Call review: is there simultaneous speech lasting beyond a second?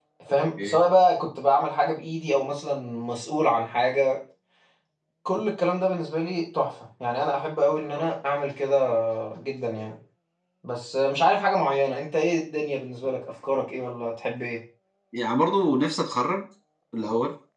No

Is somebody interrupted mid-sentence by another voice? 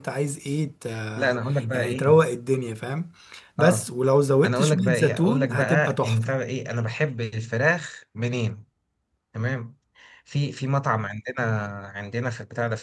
Yes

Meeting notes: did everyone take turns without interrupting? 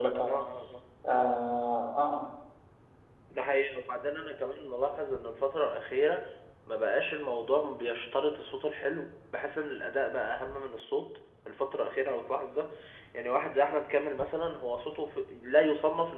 Yes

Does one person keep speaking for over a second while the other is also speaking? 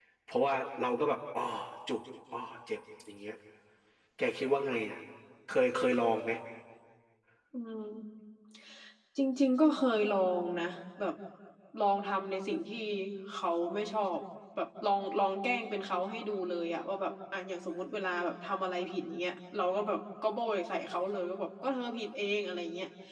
No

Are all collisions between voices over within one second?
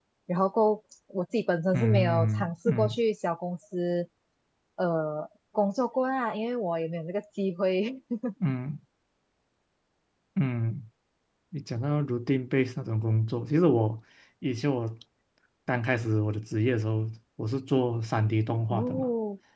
No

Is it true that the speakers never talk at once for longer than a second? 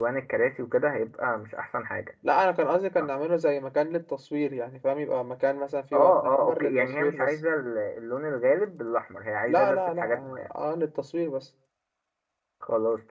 No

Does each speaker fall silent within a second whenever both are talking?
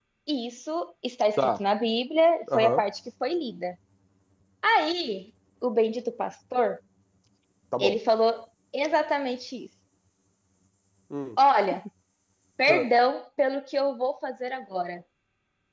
Yes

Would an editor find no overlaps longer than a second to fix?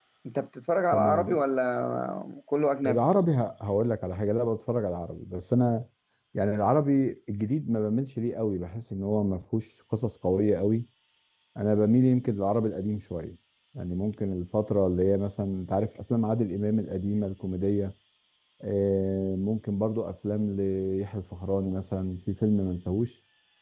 Yes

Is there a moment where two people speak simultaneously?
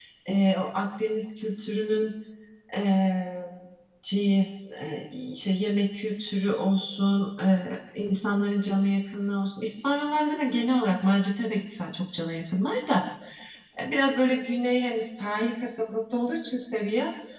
No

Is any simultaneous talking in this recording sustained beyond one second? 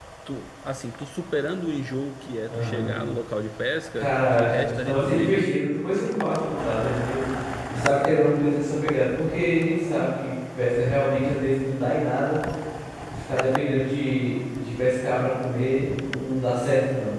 Yes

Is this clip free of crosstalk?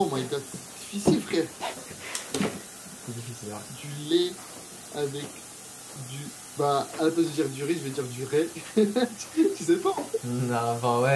Yes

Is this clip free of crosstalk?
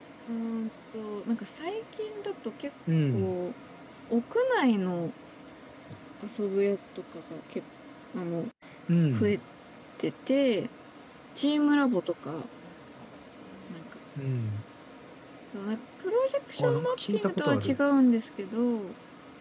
No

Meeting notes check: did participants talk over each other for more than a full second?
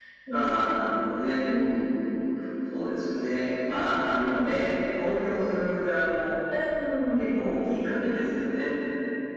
No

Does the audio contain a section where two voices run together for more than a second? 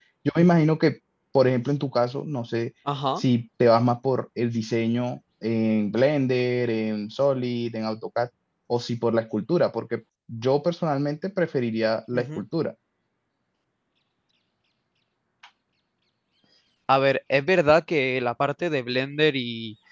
No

